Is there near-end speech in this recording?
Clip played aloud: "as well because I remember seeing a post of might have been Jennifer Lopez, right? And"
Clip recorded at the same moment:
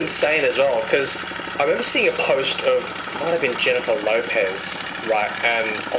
No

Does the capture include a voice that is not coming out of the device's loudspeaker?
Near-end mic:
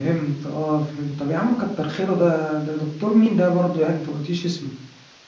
Yes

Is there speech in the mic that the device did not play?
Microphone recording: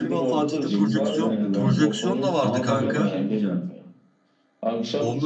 Yes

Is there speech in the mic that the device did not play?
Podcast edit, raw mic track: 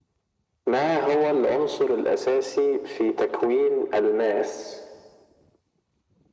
No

